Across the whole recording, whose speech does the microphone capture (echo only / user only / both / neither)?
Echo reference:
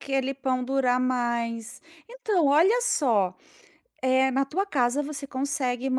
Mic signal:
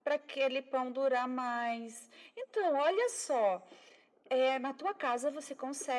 echo only